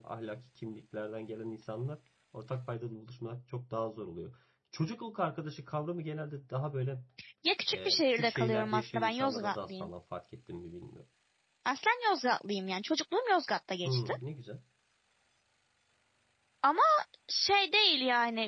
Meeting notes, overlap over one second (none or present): present